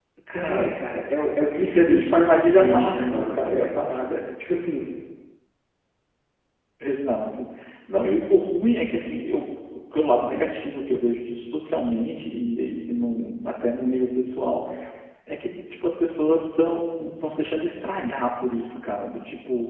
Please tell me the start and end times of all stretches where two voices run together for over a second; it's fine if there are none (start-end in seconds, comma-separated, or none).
1.6-3.7